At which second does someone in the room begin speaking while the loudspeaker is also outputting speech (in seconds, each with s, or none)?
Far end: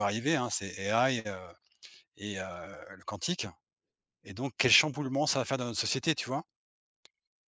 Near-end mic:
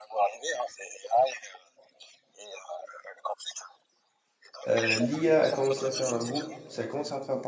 4.7 s